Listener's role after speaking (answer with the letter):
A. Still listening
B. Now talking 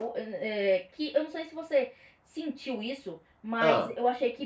A